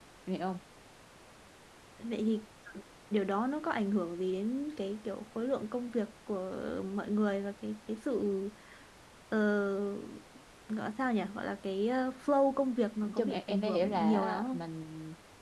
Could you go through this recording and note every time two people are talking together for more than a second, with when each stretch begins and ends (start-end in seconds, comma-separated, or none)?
13.0-14.6